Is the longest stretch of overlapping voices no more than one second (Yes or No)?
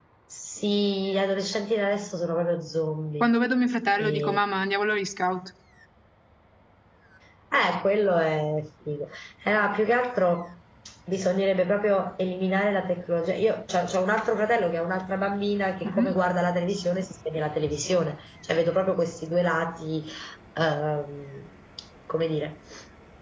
Yes